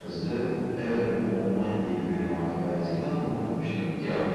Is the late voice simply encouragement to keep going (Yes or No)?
No